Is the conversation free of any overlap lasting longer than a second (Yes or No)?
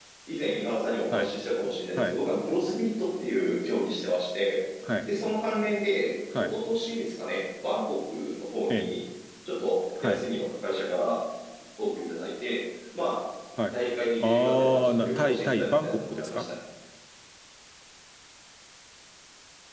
No